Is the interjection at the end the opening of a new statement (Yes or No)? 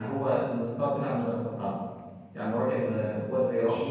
No